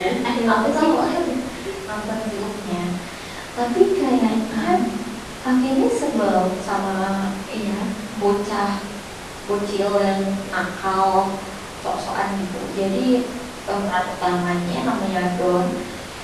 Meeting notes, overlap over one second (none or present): none